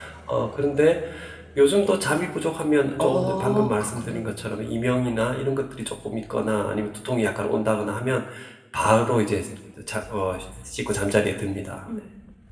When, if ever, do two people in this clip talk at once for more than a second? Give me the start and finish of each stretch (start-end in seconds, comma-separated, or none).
3.0-4.3